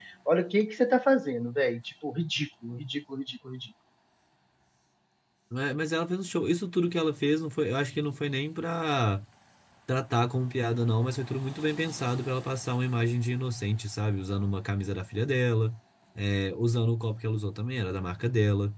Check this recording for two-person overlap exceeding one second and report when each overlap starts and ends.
none

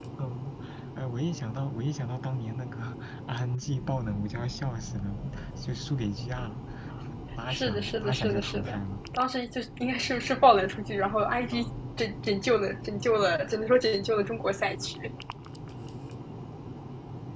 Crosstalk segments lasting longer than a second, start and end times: 7.5-8.8

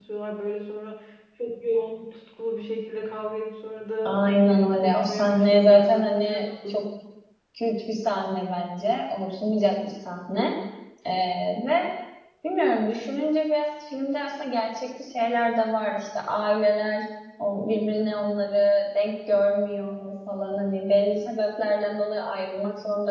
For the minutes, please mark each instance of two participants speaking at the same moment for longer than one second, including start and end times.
4.0-6.8

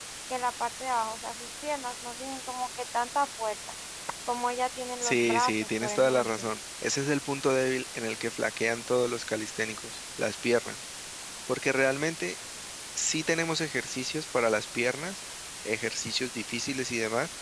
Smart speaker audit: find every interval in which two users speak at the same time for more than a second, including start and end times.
5.0-6.3

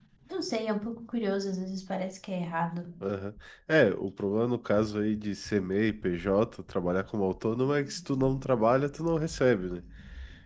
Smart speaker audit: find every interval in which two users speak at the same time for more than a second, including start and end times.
none

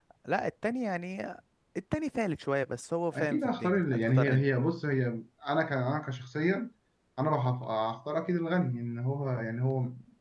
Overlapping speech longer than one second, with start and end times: 3.1-4.5

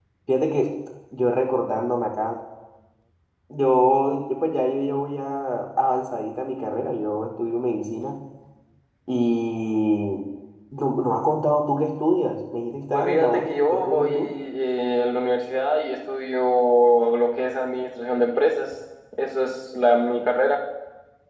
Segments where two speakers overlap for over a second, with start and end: 12.9-14.3

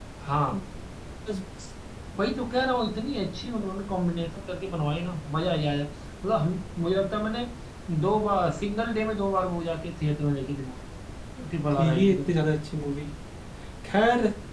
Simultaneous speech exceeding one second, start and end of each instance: none

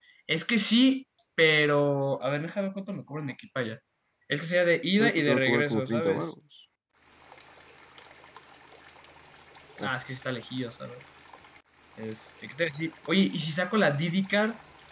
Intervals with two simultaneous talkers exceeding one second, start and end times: 5.0-6.2

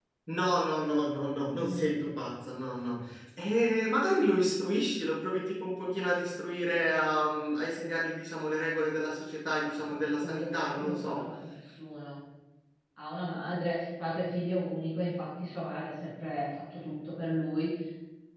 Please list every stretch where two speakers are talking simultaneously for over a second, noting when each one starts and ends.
9.8-11.2

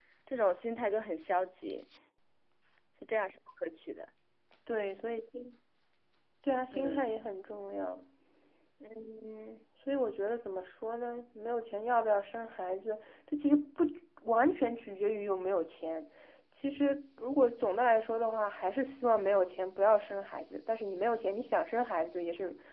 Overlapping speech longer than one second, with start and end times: none

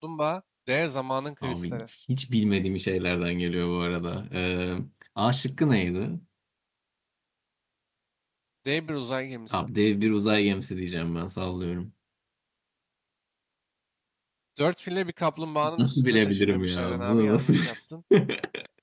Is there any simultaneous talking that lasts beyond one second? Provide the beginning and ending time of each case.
15.8-17.5

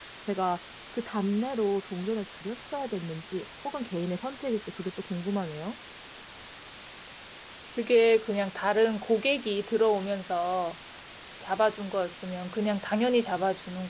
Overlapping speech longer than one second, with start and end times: none

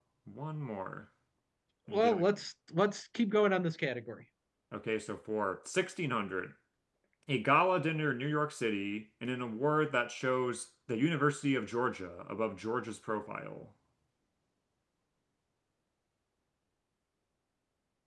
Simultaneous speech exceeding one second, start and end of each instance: none

